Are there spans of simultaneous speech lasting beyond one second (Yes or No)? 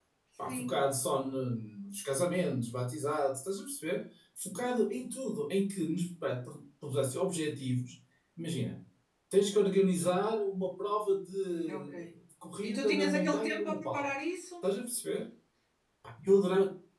Yes